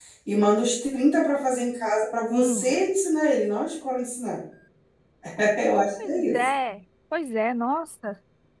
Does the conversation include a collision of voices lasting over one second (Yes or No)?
No